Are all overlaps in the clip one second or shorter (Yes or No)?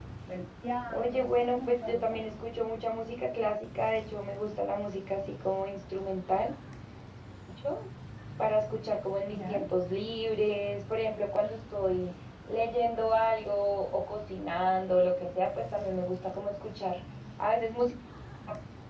No